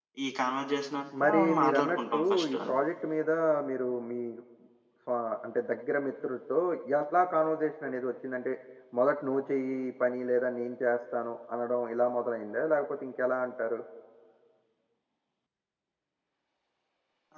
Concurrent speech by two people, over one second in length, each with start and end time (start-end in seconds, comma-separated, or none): 1.2-2.8